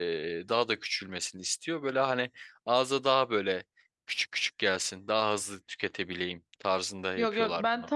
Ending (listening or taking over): taking over